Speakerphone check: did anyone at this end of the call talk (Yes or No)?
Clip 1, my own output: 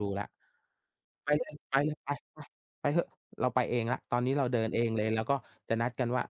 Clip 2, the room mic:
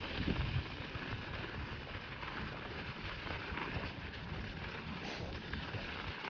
No